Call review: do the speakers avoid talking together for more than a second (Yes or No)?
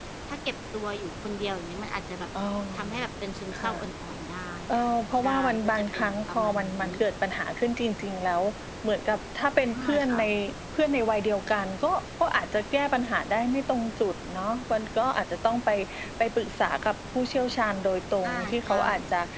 No